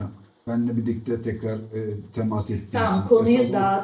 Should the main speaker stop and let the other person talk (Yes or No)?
Yes